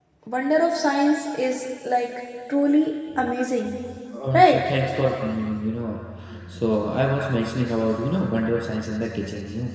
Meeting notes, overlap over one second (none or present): none